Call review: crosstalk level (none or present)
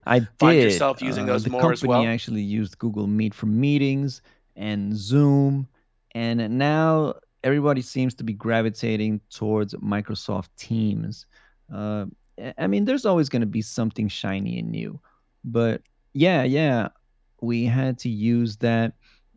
present